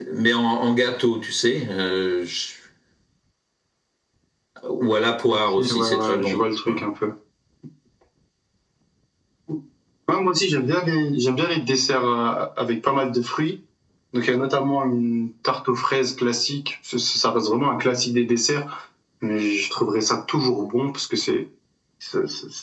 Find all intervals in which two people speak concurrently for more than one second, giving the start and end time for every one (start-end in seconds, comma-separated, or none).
5.3-6.8